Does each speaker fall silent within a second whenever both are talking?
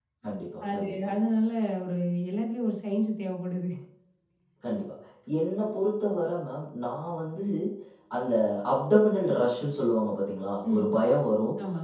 Yes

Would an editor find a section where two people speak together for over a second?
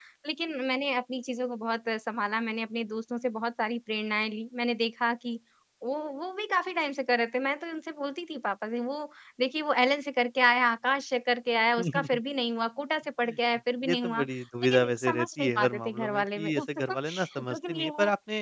Yes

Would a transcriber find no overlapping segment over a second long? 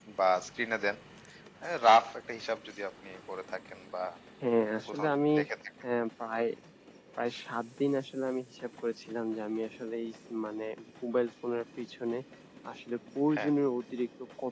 Yes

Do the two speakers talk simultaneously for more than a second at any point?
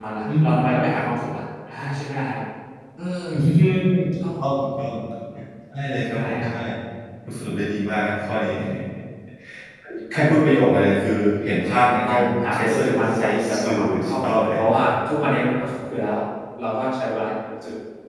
Yes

